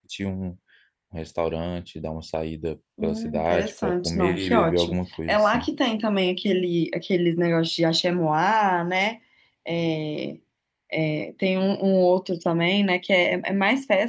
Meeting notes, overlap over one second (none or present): present